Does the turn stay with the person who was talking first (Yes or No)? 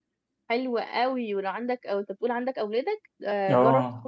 Yes